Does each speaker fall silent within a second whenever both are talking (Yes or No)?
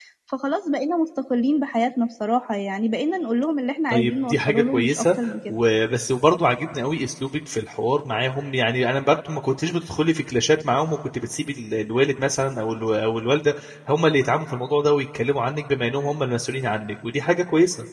No